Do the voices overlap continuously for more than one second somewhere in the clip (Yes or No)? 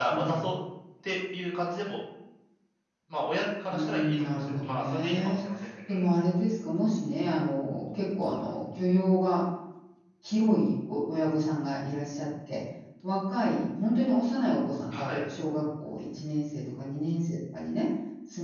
Yes